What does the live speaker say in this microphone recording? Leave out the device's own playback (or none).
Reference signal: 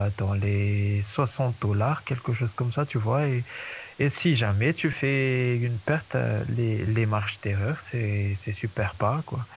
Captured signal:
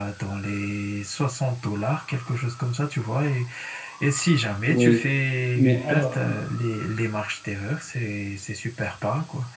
oui. Mais alors,